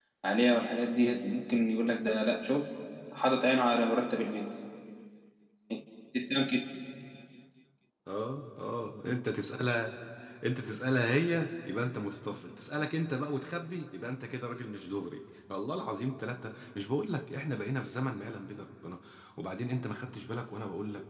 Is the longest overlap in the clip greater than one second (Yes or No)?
No